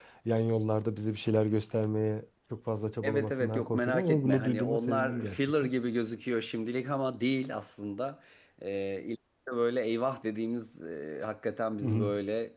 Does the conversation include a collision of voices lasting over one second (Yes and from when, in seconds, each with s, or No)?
Yes, from 3.0 s